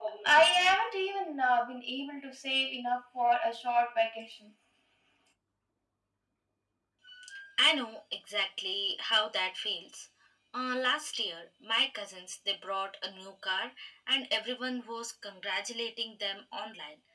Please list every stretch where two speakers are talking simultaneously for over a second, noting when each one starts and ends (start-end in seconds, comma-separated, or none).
none